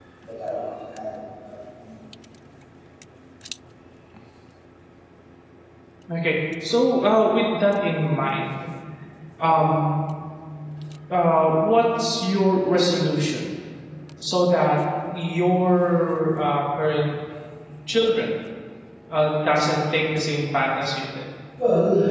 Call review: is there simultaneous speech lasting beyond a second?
No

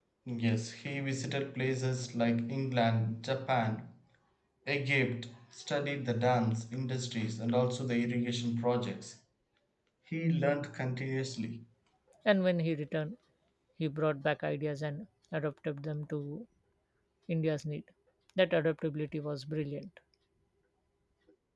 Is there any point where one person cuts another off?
No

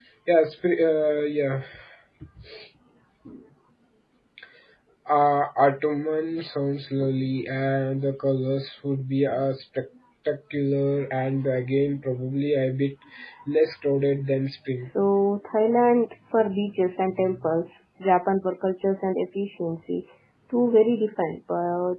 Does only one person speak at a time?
Yes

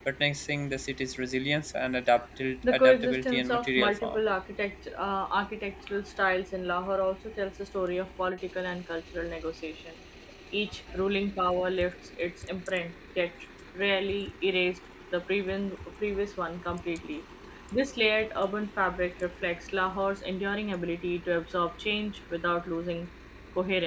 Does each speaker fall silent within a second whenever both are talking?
No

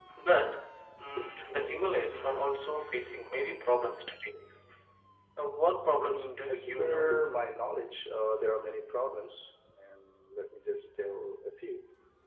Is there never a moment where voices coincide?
No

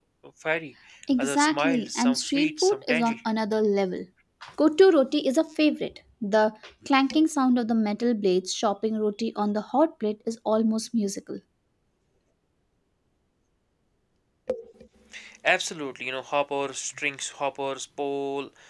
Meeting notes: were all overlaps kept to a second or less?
No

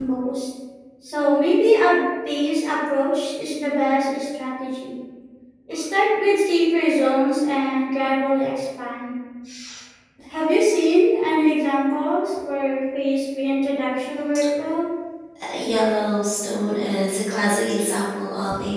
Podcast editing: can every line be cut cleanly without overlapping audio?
Yes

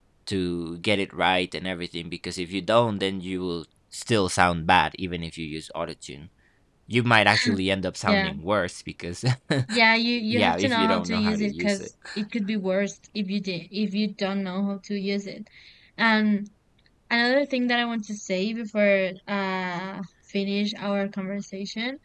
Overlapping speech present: Yes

